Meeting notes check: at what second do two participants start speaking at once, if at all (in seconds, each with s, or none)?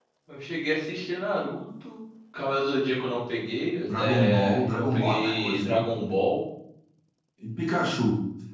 3.8 s